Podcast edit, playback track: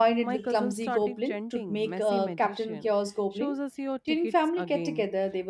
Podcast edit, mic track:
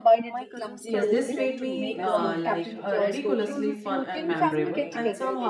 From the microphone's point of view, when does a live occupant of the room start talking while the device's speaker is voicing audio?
0.9 s

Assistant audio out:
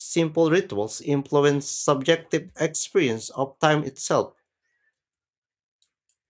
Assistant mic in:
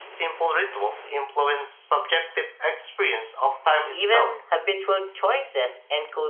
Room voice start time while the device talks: 3.9 s

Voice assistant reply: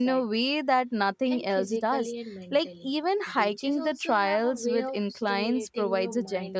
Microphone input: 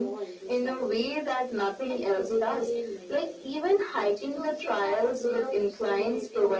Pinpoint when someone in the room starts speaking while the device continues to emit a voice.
none

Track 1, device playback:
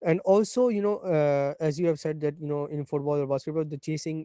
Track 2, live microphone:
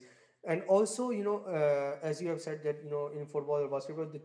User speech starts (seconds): none

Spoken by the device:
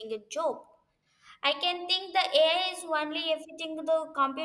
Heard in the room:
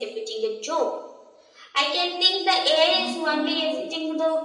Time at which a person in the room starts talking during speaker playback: 2.9 s

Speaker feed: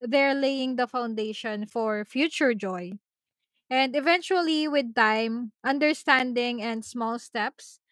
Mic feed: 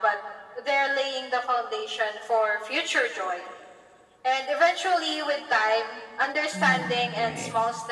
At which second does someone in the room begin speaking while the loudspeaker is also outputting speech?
6.5 s

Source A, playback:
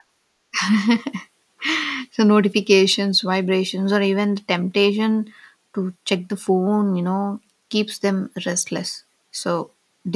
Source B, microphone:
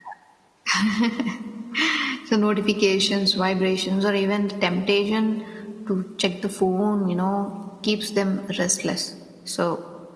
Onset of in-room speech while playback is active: none

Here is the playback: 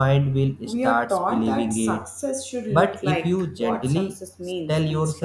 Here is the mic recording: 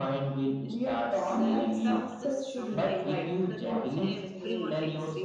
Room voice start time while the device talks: 1.2 s

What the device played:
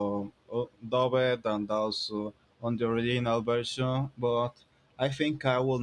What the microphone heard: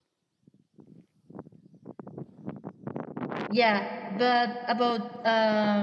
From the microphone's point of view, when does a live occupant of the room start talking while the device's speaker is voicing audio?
3.5 s

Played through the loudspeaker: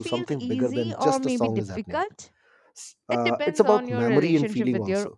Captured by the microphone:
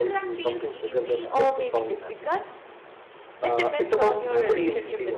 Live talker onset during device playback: none

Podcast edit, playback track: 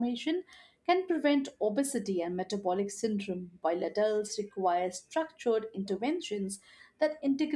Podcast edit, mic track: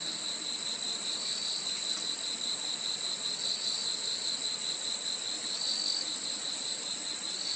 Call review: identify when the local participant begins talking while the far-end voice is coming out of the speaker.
none

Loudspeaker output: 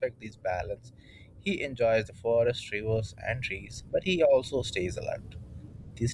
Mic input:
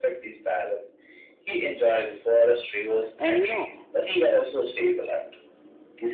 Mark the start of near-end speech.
1.6 s

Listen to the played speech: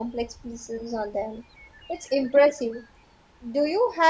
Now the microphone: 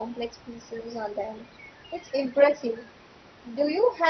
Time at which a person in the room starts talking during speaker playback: none

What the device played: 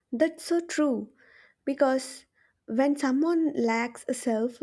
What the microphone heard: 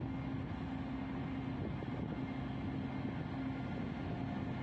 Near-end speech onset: none

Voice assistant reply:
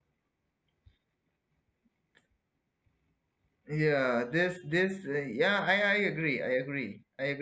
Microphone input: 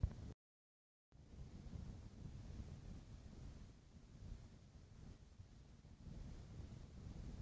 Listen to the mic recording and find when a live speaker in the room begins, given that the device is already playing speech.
none

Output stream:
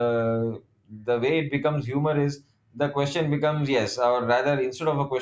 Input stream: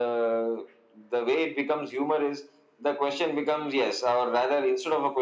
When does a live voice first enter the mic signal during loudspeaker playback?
none

